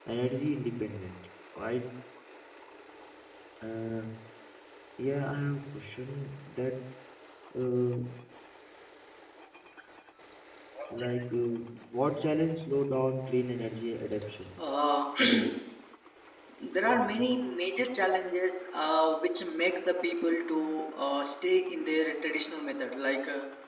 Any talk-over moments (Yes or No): No